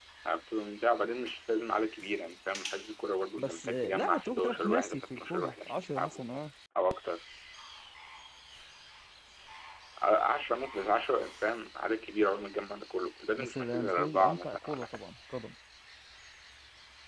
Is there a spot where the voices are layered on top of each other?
Yes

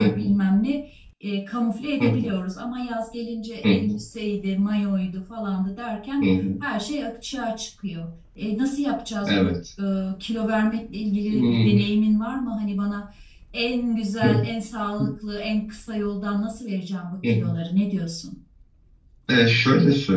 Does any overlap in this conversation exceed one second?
No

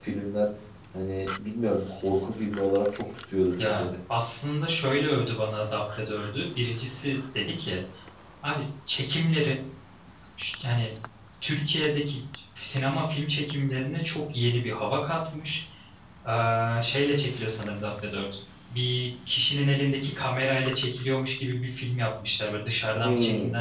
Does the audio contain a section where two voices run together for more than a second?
No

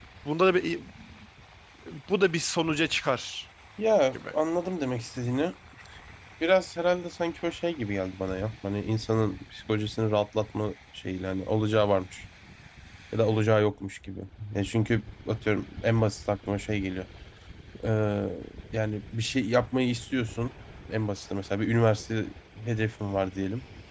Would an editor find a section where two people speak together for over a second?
No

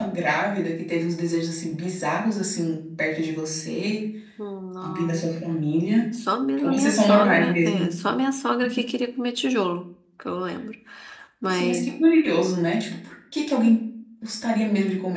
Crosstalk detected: Yes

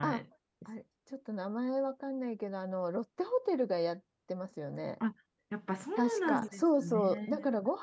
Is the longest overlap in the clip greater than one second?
Yes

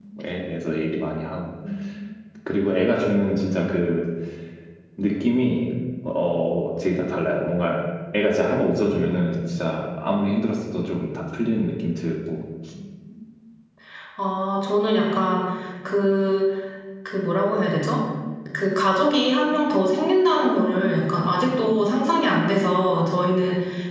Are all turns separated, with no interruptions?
Yes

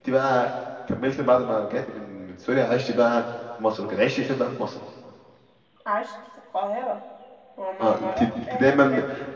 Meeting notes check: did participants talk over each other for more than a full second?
Yes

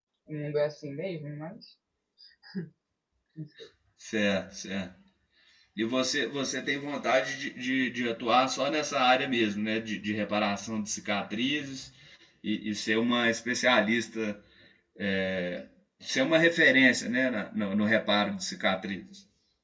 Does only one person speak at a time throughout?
Yes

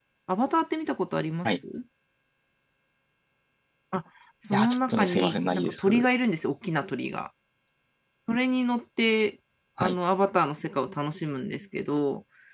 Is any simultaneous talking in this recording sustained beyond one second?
Yes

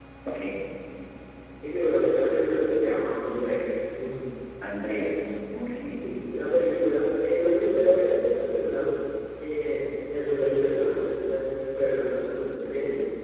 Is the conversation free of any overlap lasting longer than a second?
Yes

